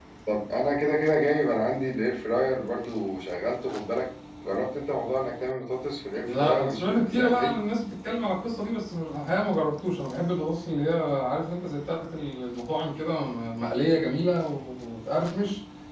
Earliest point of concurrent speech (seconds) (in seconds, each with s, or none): 6.1 s